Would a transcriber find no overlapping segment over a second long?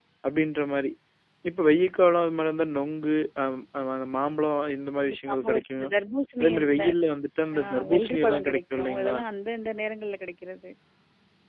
No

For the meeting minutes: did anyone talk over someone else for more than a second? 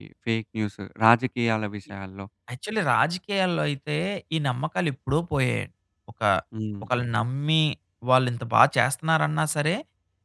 No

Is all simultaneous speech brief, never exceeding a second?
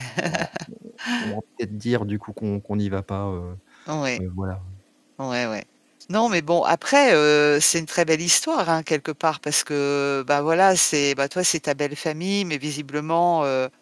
Yes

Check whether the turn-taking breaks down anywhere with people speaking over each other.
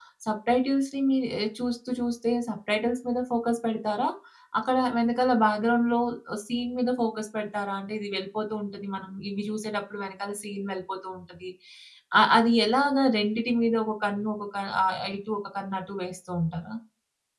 No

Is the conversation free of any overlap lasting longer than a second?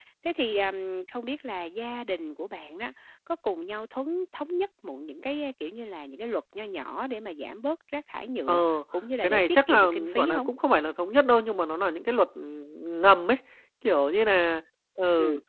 No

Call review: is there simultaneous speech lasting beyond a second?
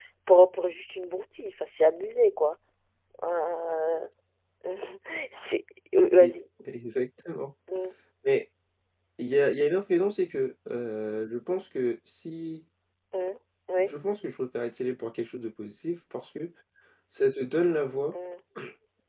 No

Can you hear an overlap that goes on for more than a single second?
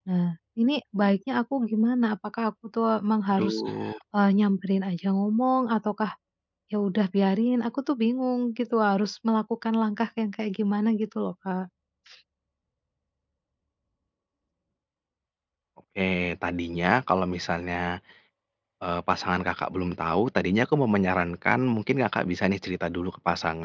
No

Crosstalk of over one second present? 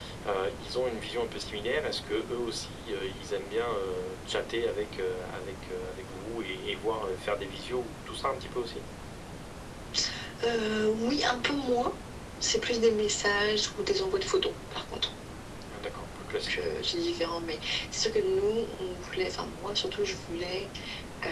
No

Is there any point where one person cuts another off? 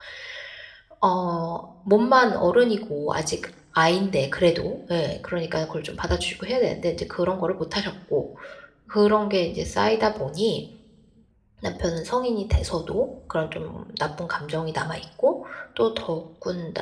No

